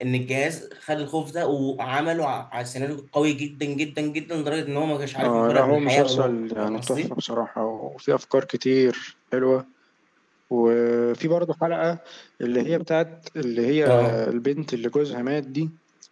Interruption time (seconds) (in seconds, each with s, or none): 5.2 s